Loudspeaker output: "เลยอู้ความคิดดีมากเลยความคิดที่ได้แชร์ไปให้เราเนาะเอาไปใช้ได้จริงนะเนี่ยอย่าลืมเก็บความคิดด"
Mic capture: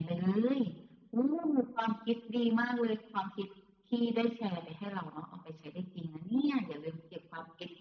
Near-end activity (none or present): none